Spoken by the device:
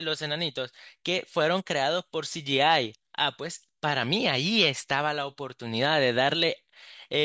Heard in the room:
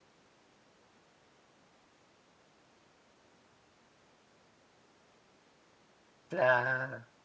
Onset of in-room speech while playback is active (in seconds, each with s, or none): 6.3 s